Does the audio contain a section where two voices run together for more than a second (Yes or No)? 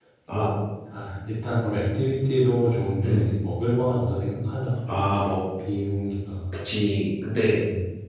No